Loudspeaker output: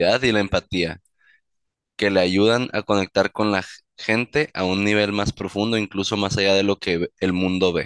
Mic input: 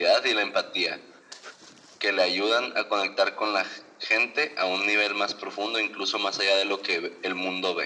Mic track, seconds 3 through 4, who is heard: echo only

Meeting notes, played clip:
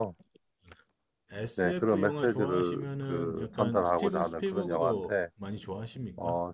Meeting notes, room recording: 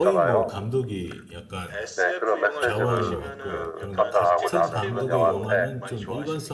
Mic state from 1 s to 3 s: both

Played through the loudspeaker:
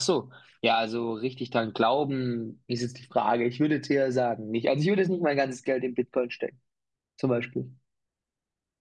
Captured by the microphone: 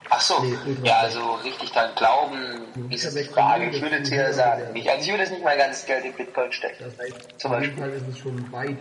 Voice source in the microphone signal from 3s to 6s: both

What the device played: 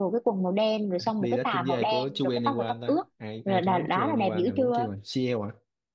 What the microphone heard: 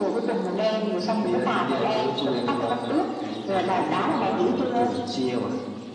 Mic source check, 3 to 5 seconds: echo only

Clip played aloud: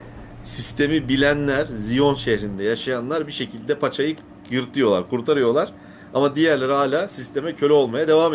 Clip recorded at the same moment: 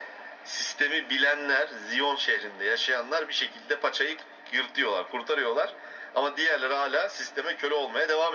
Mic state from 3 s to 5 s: echo only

